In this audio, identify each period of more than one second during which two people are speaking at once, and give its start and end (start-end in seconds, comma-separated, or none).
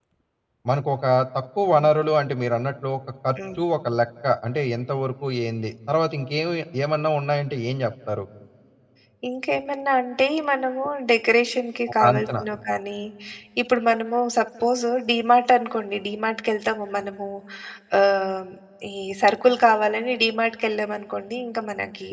none